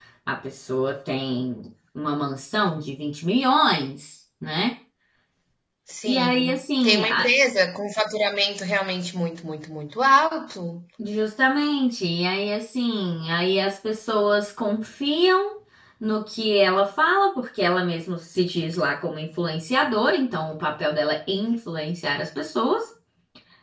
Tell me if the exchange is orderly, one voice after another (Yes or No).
No